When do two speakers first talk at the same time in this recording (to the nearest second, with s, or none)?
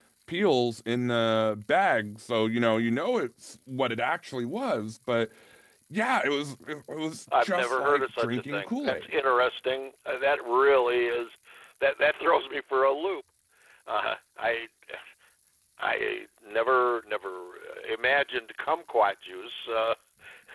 7 s